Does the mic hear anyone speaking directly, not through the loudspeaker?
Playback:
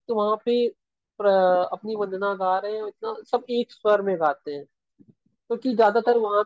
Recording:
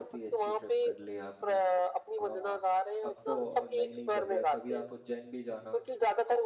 Yes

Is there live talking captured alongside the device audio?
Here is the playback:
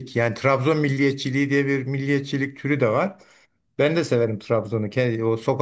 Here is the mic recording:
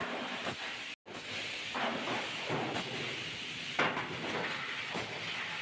No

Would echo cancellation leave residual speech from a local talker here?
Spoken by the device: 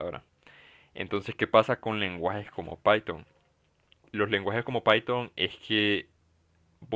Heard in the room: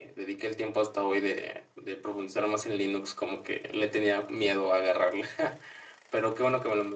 Yes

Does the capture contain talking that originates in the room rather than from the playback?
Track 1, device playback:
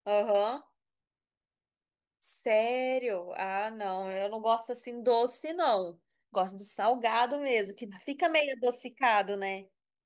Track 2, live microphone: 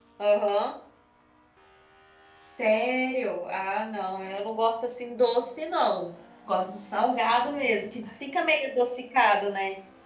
No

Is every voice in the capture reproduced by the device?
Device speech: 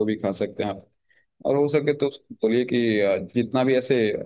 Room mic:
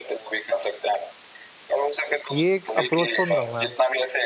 No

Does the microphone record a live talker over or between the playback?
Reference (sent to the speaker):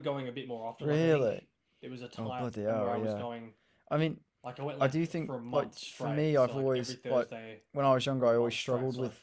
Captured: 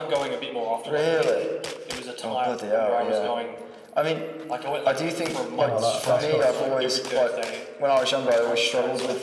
Yes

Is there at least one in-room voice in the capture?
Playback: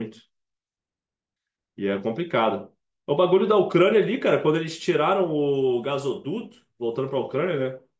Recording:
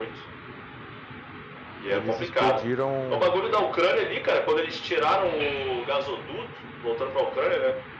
Yes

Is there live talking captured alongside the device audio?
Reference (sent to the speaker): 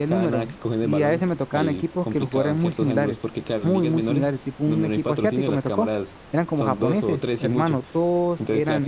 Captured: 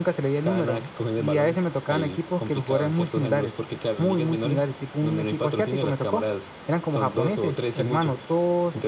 No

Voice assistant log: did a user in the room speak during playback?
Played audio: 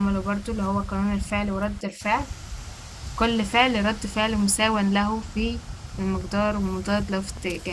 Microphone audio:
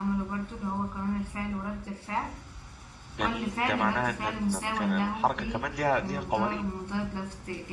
Yes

